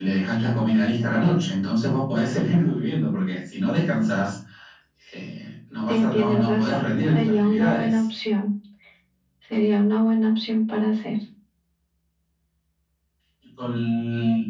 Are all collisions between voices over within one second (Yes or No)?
No